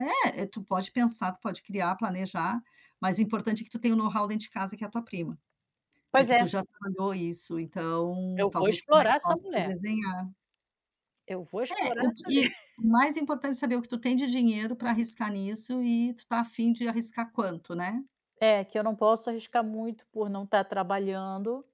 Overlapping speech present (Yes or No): Yes